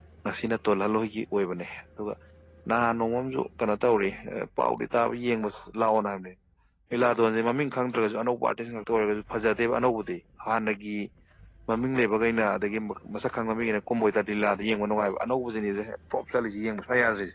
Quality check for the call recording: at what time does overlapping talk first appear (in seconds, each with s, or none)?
none